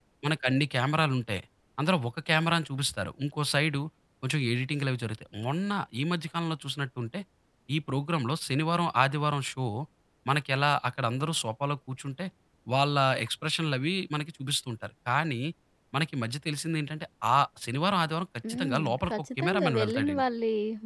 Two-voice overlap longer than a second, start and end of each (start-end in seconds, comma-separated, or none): 18.5-20.2